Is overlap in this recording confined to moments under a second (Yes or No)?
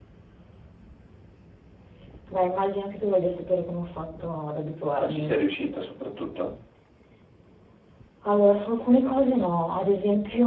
Yes